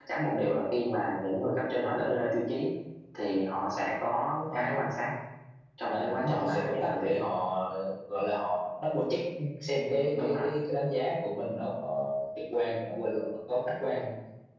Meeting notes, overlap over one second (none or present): present